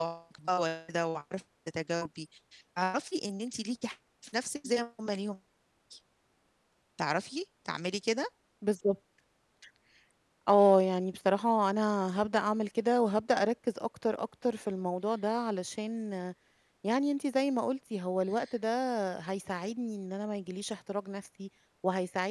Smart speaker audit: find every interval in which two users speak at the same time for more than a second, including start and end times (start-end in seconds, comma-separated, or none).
none